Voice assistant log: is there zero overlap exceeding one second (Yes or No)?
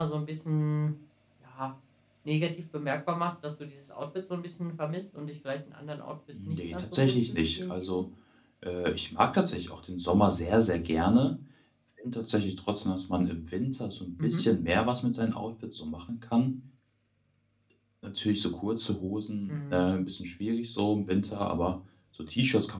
No